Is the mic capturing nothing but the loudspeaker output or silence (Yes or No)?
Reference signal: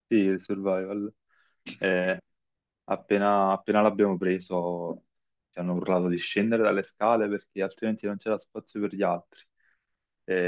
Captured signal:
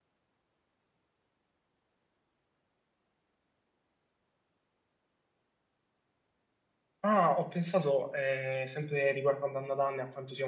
No